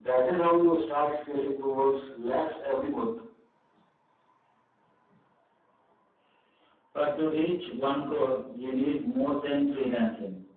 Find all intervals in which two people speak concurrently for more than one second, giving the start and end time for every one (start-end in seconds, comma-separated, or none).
none